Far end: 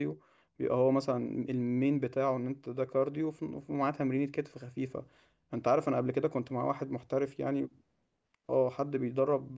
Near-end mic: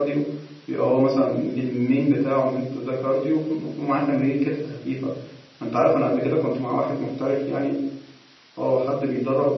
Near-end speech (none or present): none